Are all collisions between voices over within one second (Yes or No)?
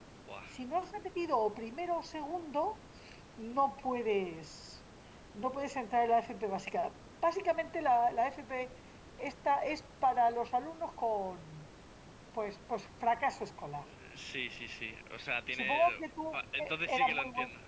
No